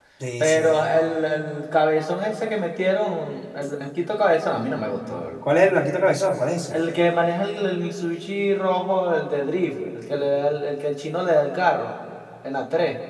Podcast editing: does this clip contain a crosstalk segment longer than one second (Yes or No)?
No